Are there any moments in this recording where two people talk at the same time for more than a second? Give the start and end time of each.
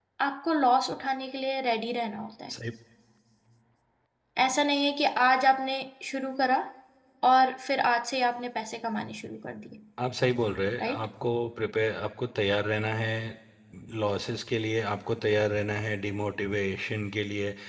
none

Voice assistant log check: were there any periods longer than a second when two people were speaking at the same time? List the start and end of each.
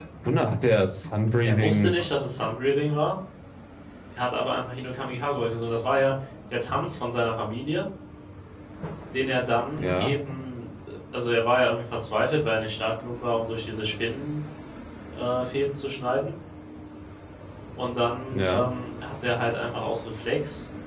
none

